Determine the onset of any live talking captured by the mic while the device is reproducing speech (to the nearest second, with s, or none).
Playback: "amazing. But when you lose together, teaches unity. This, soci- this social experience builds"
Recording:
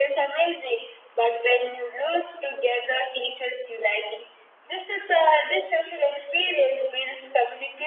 none